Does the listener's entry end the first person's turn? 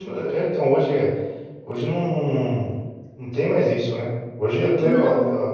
No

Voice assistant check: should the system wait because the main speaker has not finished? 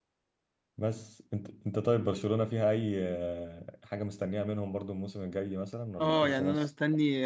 No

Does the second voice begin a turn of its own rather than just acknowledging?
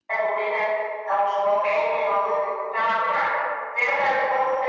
No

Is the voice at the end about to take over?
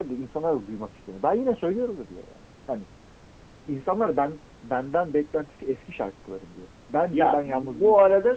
Yes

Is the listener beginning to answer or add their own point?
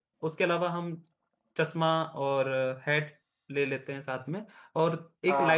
No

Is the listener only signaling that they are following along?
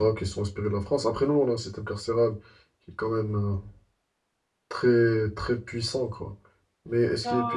No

